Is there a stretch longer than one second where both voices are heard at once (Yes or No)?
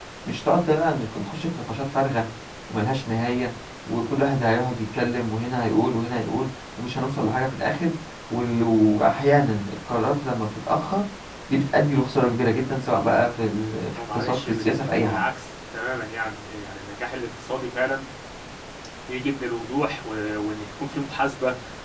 Yes